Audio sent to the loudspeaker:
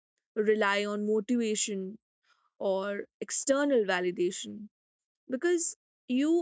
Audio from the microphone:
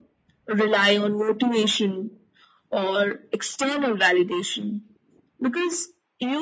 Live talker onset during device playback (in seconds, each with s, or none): none